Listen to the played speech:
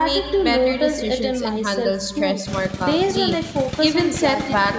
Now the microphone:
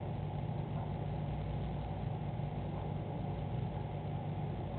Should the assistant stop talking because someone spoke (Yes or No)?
No